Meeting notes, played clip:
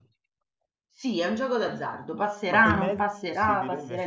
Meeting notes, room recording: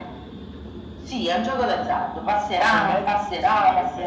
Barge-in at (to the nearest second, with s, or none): none